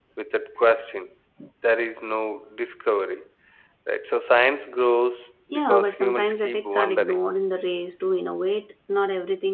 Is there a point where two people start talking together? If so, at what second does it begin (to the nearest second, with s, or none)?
6 s